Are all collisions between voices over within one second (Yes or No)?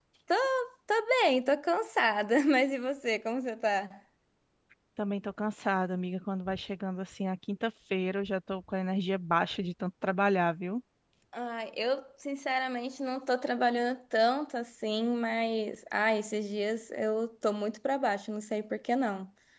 Yes